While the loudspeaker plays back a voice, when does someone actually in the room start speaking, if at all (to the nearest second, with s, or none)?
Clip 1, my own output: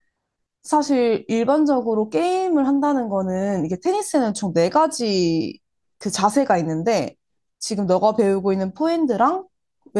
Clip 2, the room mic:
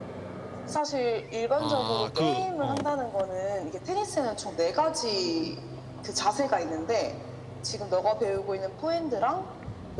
2 s